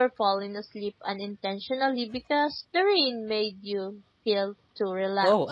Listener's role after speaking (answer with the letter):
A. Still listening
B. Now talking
B